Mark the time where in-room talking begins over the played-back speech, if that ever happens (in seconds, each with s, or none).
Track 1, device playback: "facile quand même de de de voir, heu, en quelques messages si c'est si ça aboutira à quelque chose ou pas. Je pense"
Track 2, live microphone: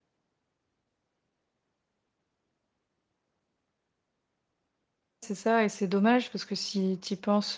5.2 s